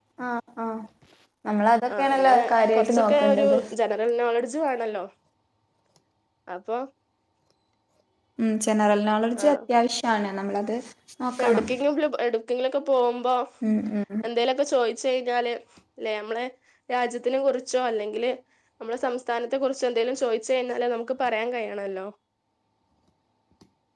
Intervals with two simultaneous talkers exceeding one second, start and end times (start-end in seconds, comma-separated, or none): 2.2-3.6